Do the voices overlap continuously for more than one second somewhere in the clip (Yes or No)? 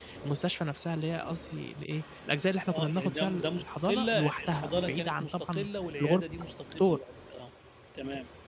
Yes